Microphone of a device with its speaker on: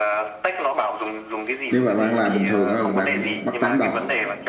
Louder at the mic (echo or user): user